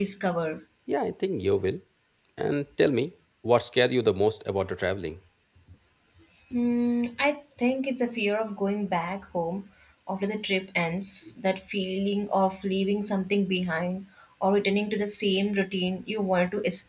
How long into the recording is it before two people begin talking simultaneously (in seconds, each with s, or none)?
none